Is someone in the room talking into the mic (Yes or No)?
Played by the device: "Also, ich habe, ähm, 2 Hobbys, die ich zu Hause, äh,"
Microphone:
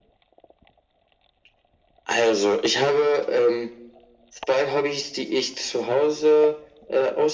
No